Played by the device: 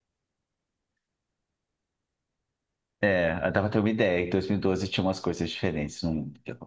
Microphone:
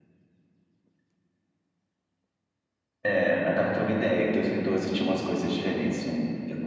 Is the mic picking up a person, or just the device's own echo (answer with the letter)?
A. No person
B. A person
A